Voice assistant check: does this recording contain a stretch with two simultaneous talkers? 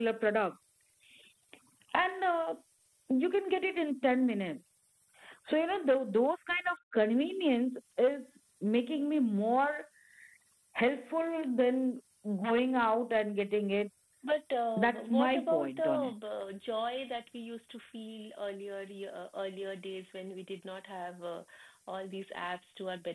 Yes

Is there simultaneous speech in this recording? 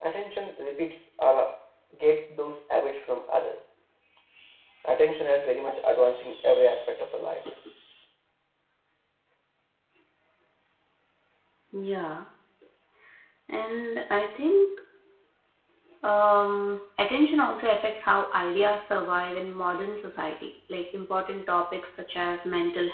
No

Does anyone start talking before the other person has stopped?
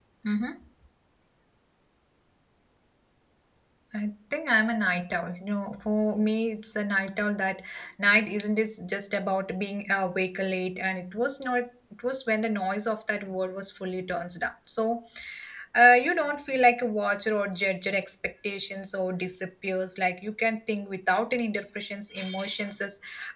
No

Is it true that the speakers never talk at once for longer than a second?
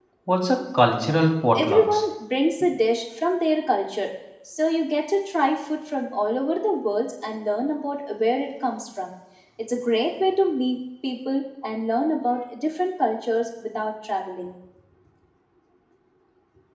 Yes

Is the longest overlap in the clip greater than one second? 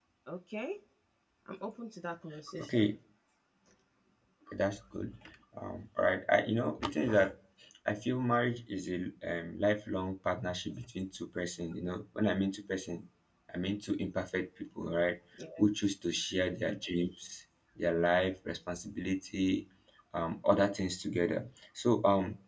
No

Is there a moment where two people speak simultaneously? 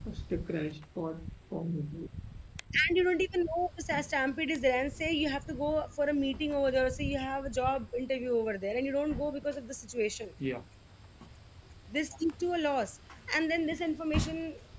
No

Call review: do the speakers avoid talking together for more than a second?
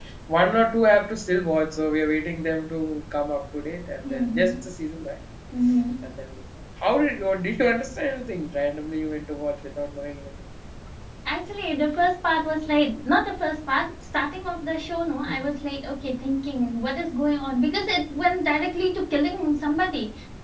Yes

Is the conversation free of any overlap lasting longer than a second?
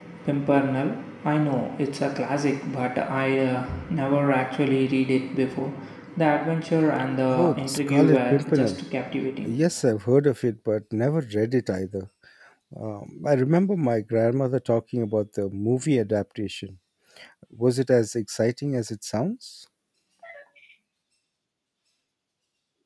No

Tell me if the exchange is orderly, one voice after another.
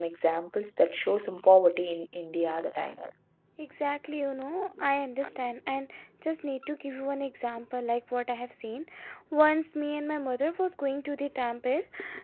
Yes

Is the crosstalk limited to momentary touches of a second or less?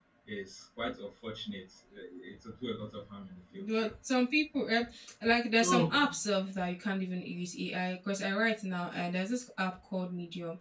Yes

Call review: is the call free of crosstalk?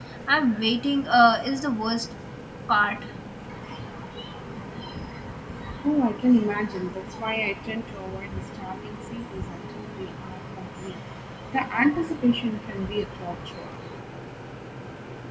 Yes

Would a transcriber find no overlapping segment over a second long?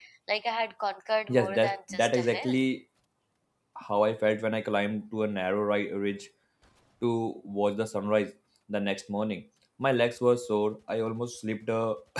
No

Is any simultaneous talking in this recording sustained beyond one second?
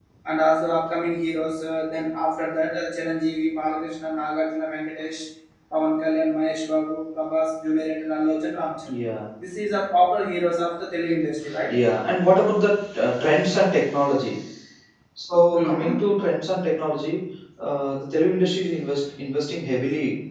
No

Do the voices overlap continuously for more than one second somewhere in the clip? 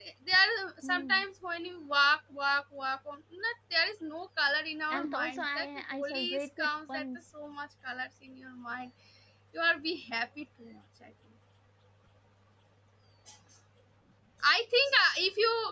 Yes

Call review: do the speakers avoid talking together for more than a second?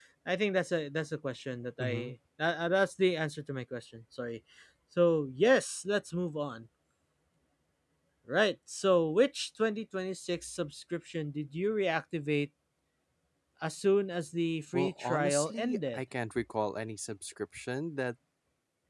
No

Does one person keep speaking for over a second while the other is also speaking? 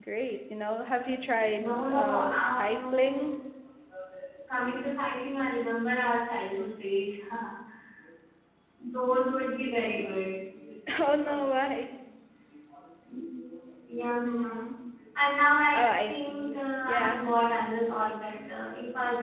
Yes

